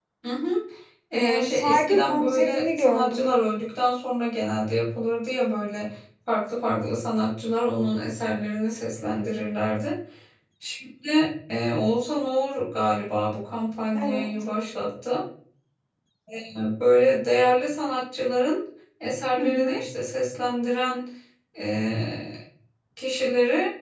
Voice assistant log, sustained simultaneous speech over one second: present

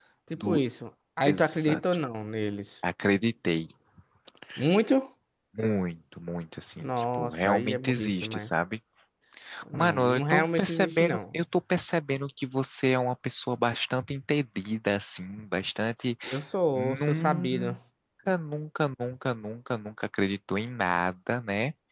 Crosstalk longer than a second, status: present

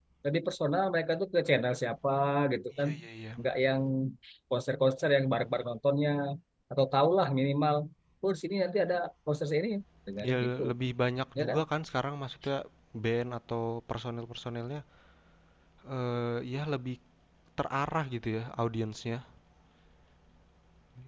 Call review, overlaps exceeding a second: none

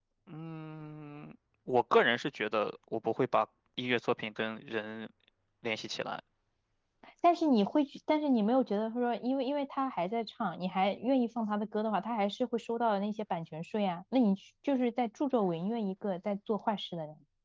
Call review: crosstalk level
none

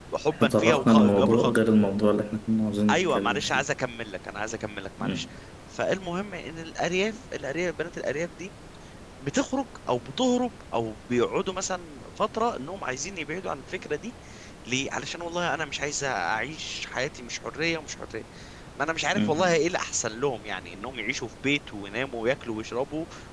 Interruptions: present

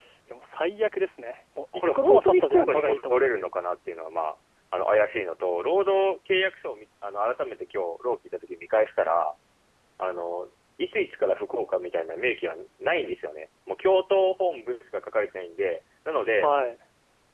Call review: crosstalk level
present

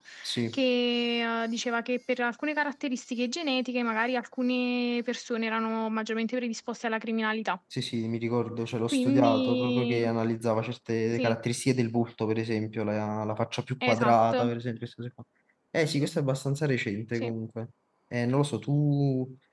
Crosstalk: present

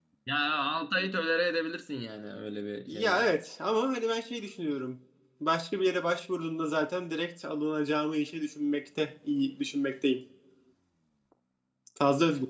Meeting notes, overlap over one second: none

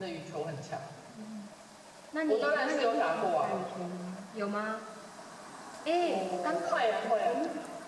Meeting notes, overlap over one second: present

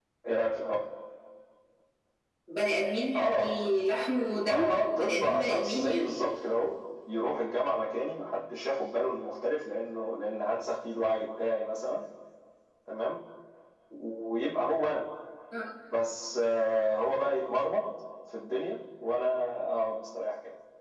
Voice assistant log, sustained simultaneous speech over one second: present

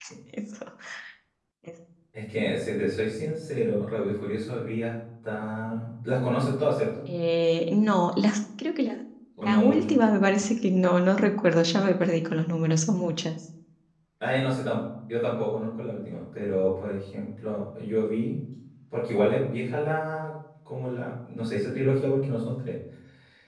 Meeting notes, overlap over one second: none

